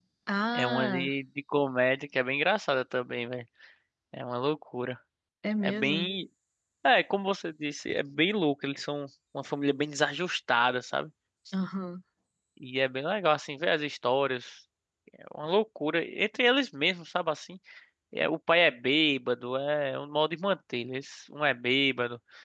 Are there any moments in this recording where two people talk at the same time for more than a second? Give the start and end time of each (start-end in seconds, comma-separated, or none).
none